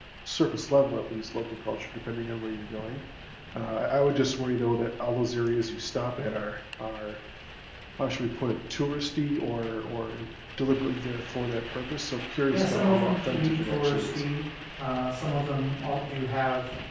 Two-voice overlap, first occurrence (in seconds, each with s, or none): 12.5 s